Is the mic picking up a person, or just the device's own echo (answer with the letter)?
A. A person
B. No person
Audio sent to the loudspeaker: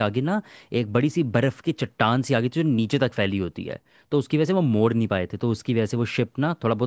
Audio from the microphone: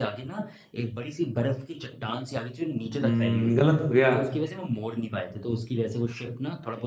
A